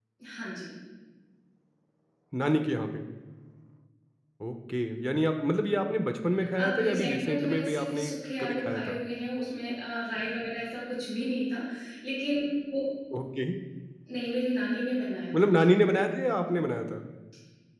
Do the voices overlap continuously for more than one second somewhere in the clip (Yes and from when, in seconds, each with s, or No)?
Yes, from 6.6 s